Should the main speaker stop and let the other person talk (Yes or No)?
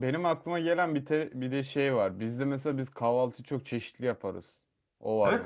Yes